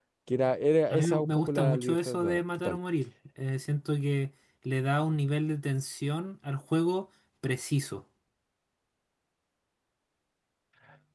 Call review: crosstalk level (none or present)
present